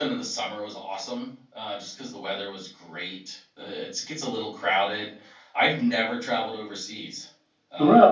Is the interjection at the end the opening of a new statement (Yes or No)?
No